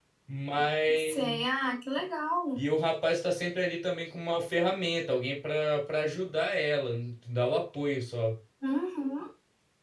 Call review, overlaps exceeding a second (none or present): none